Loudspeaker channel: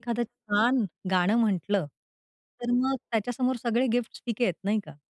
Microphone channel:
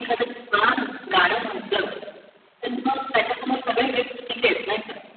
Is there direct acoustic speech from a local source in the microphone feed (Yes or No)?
No